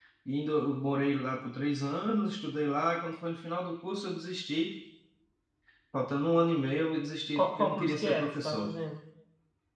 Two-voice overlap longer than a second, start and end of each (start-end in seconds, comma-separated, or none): 7.3-8.7